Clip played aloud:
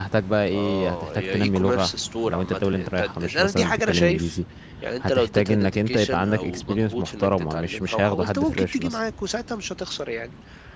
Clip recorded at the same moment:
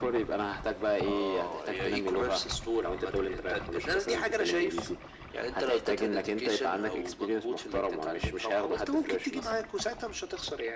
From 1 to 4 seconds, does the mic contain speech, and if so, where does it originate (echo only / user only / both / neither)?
echo only